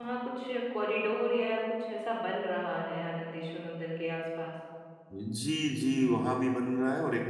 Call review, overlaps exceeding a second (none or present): none